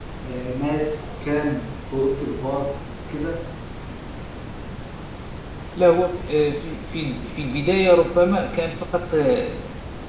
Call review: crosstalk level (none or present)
none